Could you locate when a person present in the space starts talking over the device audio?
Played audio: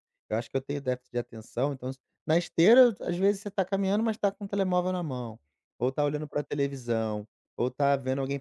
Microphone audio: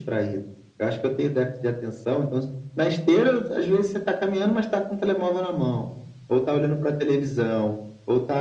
none

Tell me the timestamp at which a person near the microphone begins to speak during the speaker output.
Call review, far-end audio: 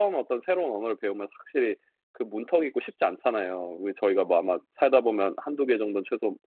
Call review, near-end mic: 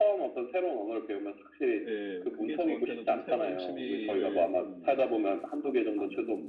2 s

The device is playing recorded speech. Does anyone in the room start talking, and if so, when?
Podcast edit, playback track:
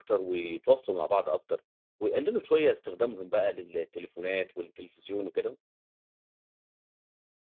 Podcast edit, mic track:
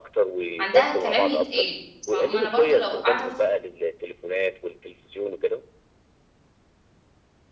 1 s

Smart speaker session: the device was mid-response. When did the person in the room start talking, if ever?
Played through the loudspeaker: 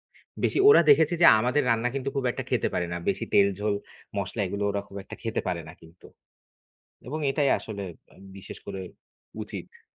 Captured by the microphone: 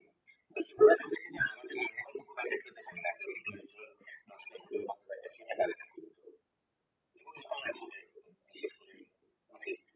none

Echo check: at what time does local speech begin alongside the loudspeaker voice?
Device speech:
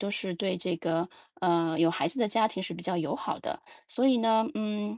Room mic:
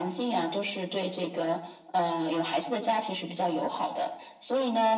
none

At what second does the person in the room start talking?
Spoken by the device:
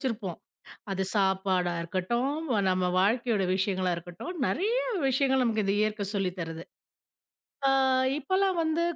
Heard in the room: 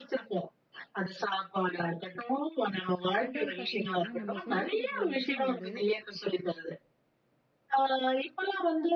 3 s

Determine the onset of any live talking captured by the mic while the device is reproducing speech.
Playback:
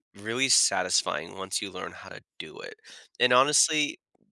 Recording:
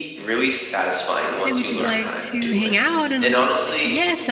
1 s

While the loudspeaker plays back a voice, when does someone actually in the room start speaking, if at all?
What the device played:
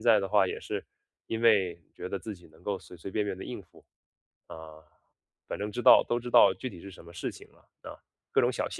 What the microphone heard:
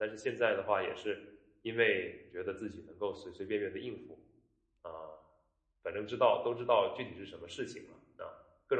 none

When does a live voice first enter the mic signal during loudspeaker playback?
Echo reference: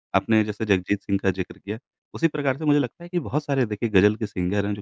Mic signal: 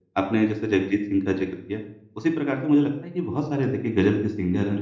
none

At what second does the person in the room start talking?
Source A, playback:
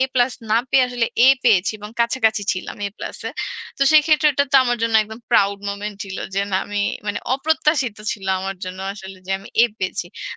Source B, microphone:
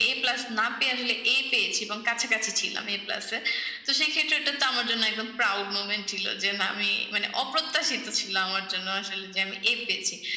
none

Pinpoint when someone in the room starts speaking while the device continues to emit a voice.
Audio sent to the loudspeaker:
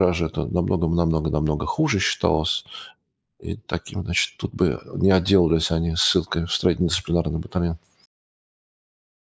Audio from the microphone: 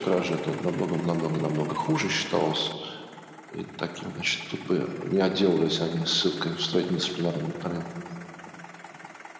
none

